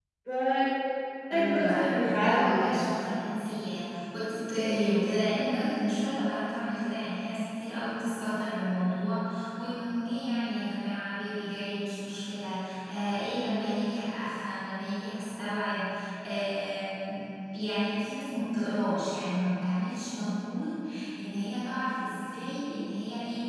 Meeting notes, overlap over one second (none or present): present